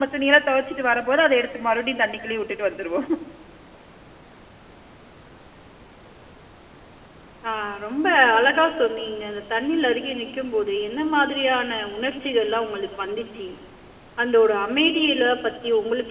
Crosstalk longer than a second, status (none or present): none